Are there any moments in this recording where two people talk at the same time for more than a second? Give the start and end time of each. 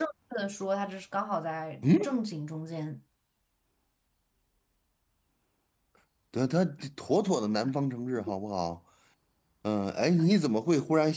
none

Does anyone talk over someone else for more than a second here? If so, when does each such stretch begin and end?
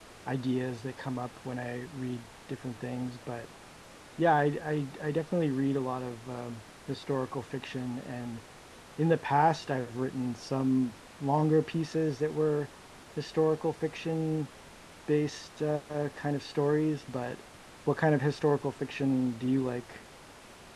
none

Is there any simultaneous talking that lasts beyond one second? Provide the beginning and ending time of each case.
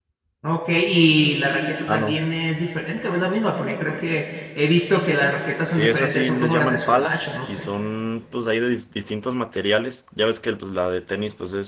5.7-7.7

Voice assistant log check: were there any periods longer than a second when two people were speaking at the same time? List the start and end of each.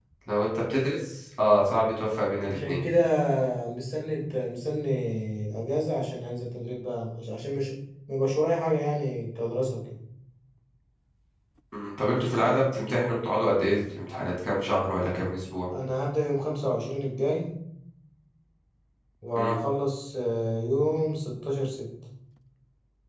none

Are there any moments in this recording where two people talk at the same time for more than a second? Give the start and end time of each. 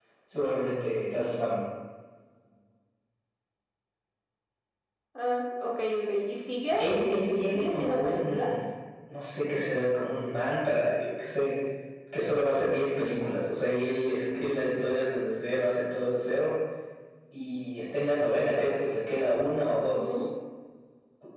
6.8-8.5

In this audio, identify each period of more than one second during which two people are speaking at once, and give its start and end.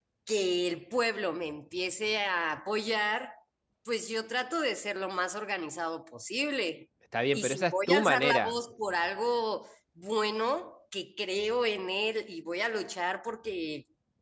7.3-8.6

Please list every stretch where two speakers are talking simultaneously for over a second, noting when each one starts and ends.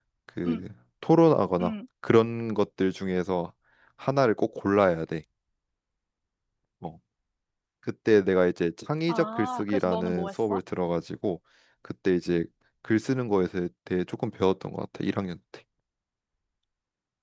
9.1-10.6

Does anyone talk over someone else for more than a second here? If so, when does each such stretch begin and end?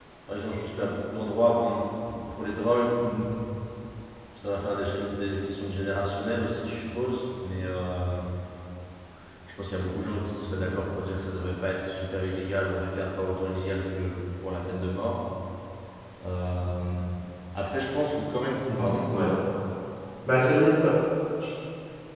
none

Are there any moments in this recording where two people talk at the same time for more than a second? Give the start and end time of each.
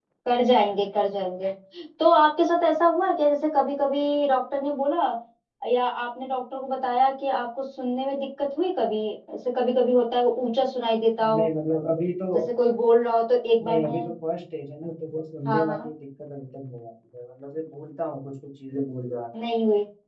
none

